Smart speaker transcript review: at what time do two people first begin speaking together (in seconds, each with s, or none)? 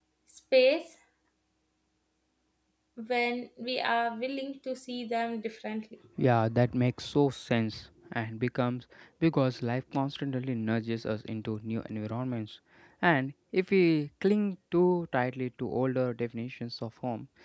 none